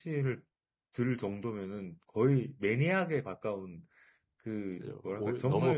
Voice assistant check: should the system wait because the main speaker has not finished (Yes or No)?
No